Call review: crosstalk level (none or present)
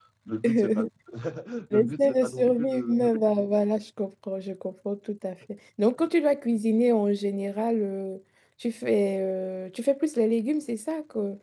present